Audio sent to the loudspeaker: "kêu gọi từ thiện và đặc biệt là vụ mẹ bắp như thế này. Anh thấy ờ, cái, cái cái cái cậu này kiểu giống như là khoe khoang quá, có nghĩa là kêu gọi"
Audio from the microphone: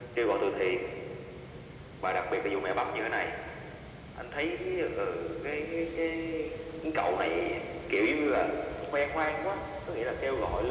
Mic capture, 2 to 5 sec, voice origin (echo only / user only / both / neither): echo only